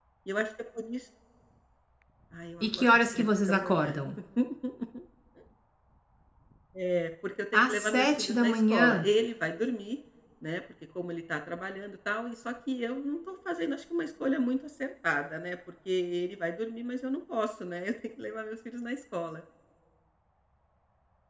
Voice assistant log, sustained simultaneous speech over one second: present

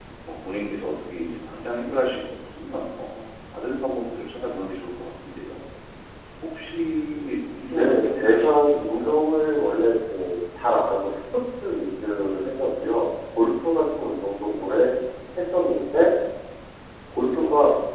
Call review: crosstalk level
present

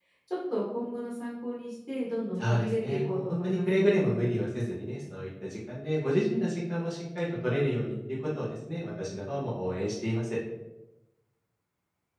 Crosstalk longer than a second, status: present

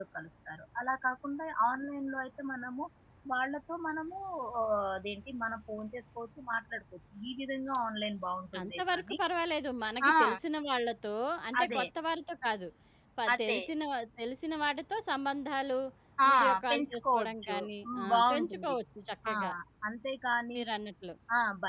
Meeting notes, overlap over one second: present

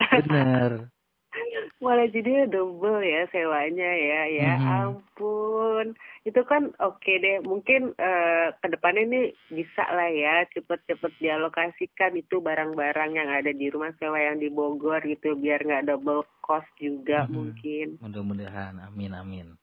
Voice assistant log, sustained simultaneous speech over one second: none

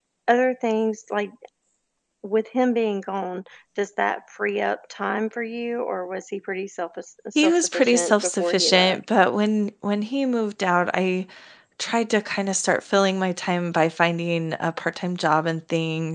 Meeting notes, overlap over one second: present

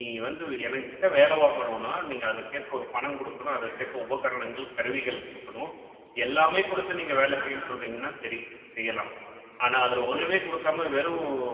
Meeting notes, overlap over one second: none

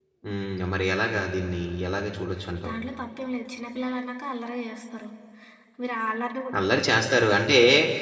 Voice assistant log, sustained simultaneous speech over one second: none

